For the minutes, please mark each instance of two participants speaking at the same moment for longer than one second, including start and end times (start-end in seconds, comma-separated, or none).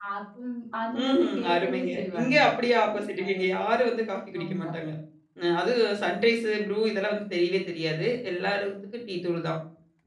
0.9-2.4